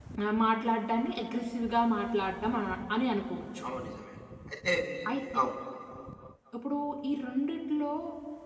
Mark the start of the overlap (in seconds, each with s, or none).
none